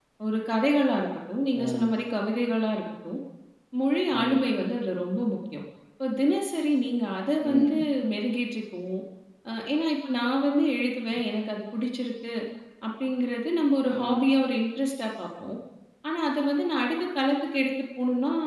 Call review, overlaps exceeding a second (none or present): none